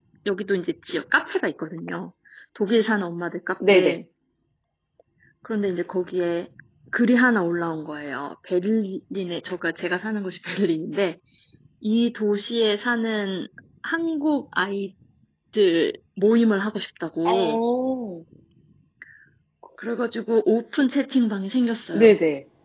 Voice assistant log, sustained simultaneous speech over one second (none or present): none